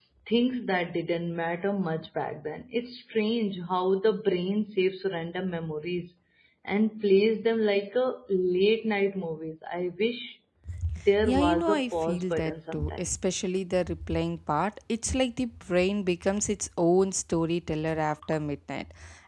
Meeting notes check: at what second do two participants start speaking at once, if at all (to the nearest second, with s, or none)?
11 s